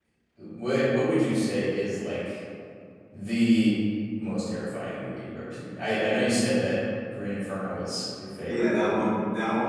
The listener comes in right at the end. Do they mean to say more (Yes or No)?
Yes